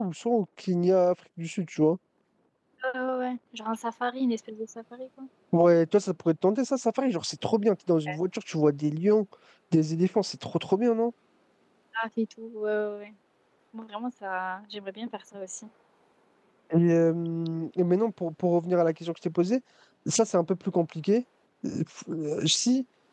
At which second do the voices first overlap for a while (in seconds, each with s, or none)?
none